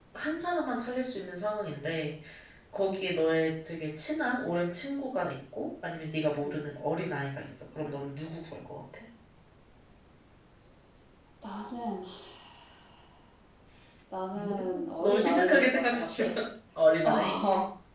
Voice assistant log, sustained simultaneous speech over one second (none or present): present